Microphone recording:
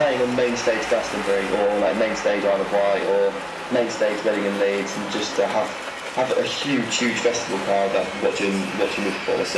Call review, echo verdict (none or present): present